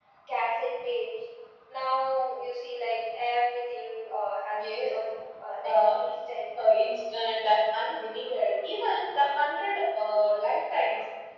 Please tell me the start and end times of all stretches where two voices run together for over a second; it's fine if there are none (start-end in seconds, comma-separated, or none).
none